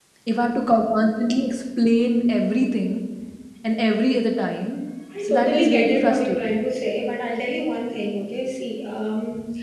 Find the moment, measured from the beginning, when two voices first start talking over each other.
5 s

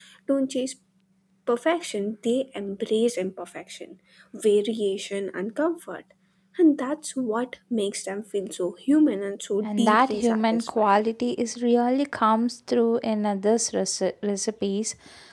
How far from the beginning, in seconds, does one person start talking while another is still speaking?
10 s

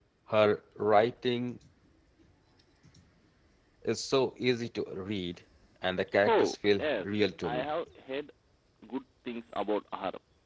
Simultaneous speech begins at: 6 s

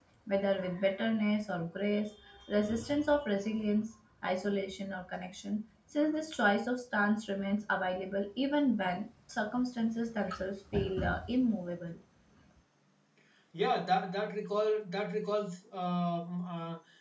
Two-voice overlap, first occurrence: none

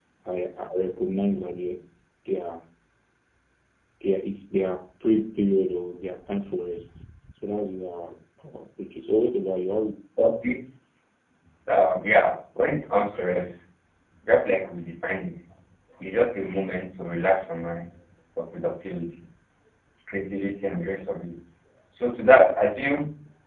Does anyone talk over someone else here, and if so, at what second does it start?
none

